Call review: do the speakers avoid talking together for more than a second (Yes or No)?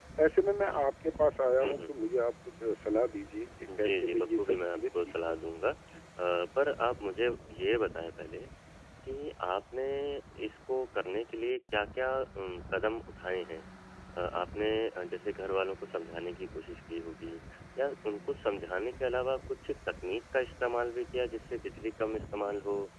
No